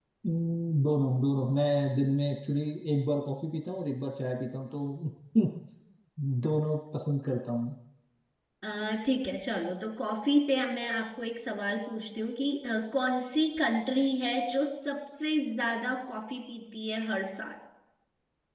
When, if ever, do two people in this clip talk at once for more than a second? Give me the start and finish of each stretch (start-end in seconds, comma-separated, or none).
none